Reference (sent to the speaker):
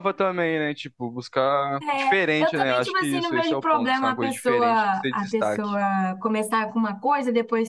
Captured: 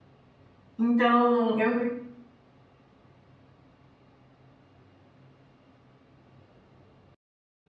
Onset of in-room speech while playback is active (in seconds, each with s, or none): 0.8 s